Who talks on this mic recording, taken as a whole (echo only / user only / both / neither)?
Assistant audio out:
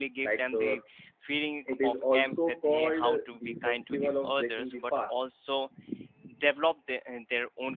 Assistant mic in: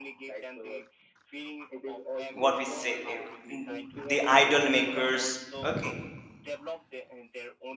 both